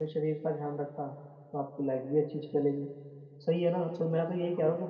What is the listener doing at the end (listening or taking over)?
listening